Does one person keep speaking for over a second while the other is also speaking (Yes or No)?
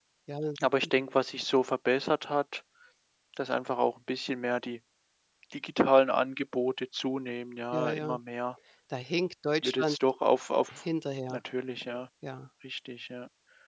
No